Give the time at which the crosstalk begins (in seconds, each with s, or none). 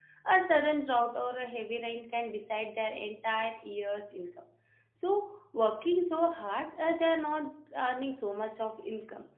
none